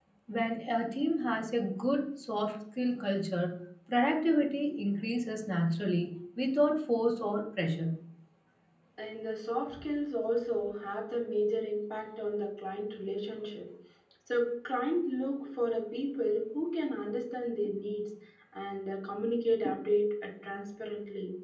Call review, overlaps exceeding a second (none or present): none